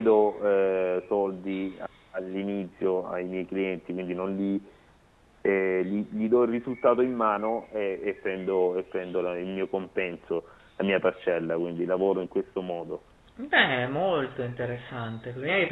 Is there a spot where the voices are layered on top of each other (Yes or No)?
No